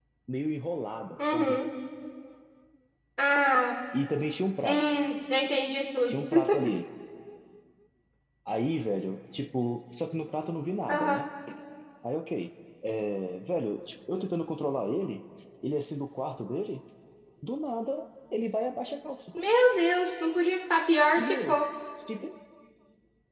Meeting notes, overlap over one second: none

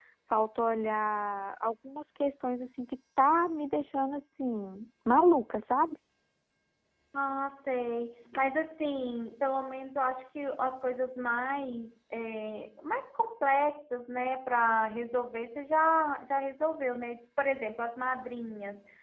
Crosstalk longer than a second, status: none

